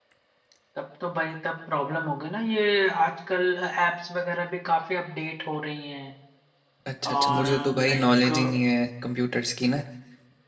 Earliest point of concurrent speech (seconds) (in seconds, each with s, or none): 7.1 s